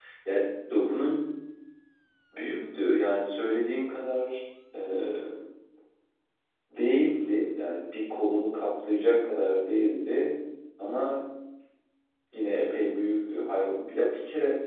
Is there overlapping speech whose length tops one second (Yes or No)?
No